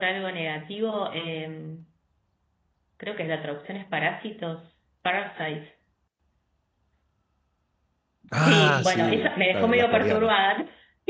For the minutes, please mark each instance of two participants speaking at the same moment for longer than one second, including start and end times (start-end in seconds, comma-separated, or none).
8.3-10.3